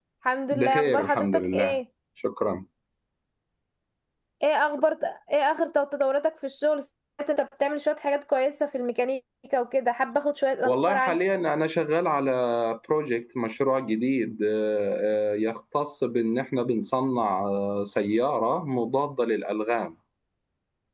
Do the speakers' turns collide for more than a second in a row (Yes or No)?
Yes